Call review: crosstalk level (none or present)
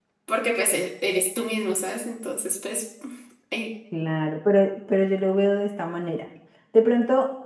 none